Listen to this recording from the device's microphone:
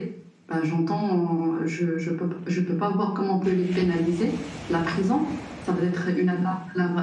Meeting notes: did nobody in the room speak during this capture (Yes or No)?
Yes